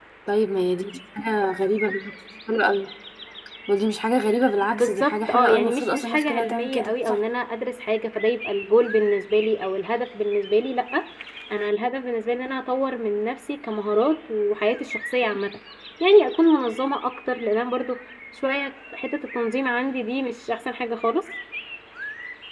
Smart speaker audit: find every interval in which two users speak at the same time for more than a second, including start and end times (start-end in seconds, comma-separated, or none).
4.7-7.2